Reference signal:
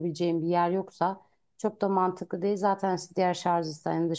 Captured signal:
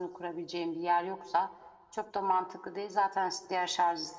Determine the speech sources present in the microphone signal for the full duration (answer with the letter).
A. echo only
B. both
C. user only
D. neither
A